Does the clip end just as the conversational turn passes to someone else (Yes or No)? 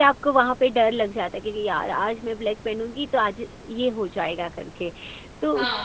Yes